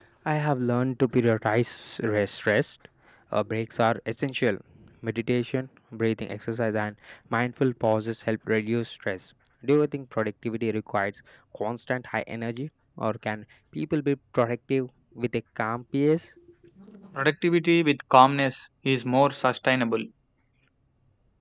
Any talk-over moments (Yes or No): No